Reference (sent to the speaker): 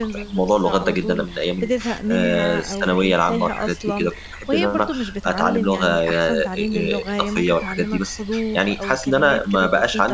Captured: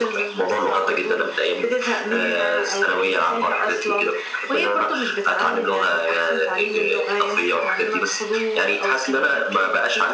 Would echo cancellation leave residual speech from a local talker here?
No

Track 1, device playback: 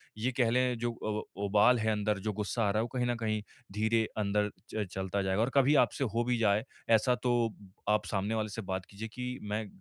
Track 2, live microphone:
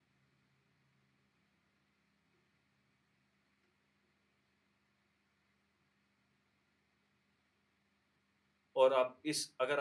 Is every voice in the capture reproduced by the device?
No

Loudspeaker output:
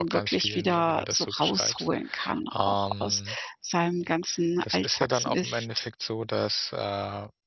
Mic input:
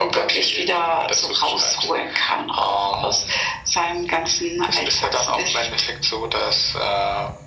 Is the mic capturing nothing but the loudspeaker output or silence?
Yes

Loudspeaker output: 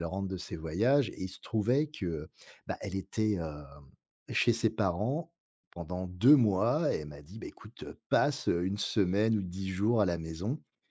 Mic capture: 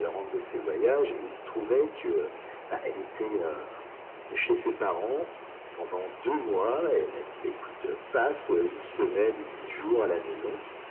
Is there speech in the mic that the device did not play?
No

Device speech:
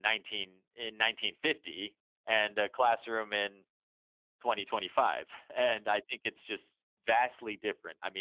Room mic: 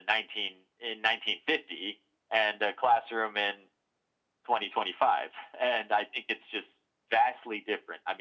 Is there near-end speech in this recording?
No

